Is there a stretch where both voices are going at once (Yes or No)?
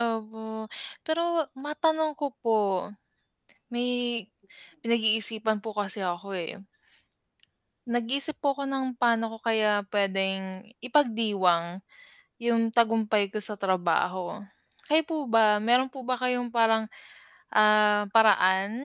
No